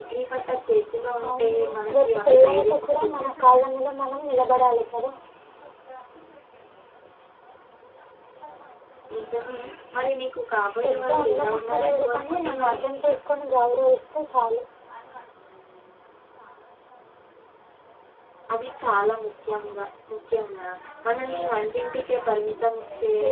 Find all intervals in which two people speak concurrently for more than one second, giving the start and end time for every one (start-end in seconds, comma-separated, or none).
1.3-3.3, 10.8-12.8